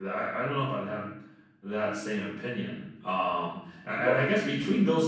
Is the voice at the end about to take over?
No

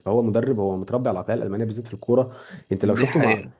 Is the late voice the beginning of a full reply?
No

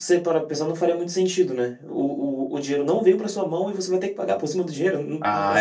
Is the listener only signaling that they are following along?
No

